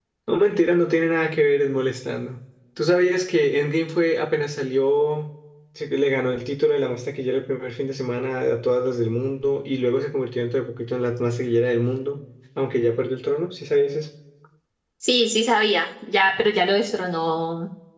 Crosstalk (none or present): none